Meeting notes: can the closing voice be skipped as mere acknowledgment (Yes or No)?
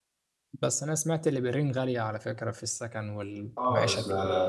No